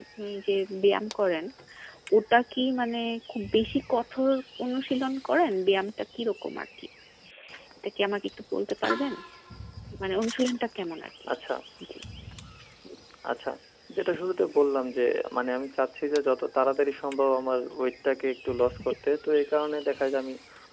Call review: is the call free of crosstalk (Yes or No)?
Yes